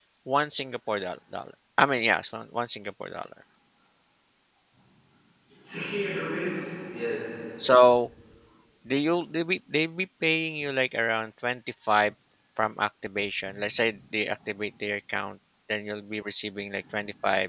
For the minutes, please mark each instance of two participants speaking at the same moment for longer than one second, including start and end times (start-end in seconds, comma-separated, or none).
none